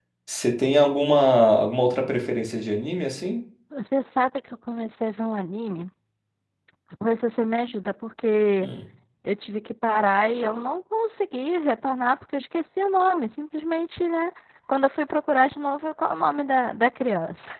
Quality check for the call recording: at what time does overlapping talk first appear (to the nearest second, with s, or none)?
none